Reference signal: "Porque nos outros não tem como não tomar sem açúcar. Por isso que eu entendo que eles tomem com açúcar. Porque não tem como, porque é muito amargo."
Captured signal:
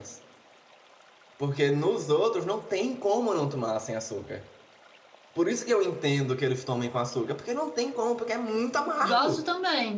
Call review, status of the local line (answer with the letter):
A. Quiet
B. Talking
B